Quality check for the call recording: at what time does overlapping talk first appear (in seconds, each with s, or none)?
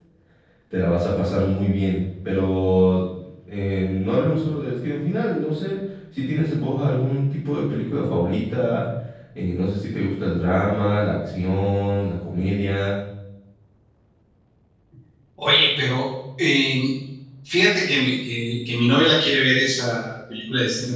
none